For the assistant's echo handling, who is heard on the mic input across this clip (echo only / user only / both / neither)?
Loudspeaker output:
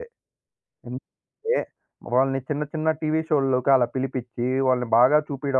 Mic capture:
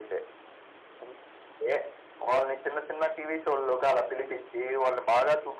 echo only